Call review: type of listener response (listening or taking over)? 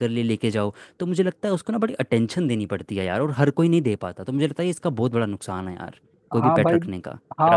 taking over